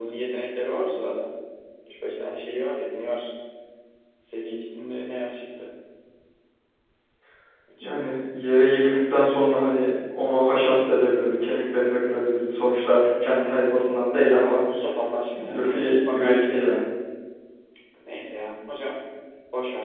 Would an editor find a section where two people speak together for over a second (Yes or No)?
Yes